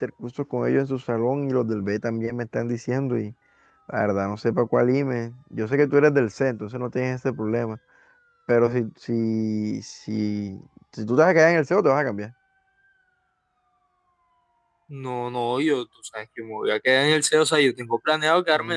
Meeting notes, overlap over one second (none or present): none